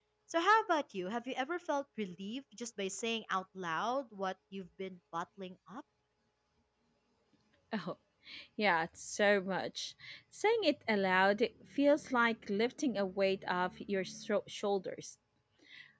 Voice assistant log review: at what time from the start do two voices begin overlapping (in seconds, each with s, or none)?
none